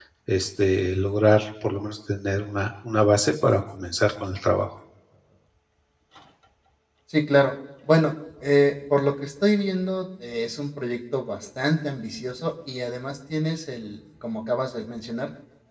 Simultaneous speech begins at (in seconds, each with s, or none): none